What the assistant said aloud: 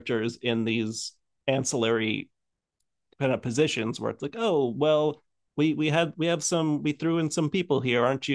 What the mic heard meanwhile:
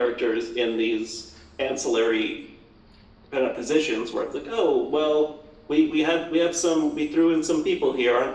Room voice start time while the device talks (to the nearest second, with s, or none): none